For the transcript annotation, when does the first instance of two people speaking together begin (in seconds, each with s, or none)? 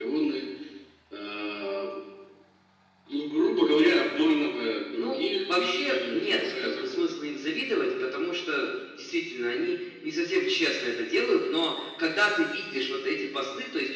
4.9 s